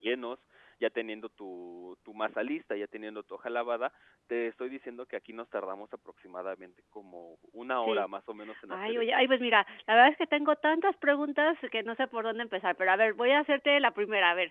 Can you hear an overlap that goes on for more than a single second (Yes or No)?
No